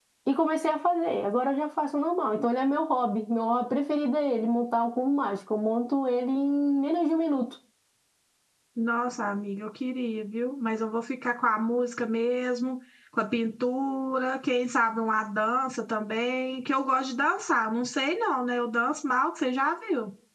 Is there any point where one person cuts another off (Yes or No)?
No